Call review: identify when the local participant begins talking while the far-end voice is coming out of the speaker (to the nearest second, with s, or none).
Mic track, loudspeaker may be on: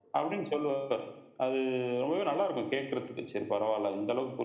none